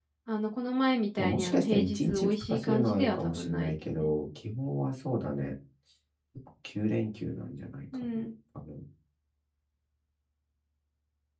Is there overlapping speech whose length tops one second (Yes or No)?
Yes